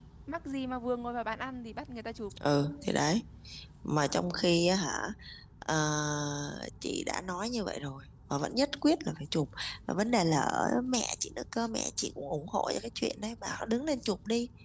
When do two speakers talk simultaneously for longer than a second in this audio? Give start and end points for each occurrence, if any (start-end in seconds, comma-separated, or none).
none